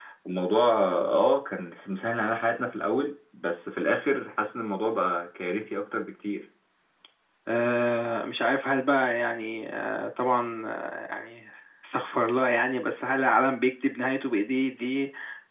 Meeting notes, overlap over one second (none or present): none